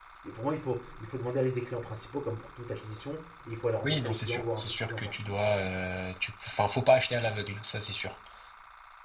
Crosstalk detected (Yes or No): Yes